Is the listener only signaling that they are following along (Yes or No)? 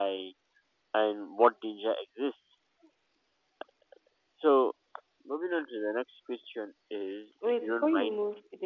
No